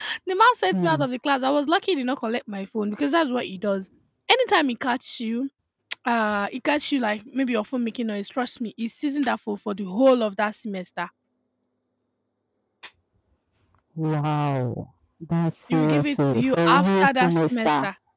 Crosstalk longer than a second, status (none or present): present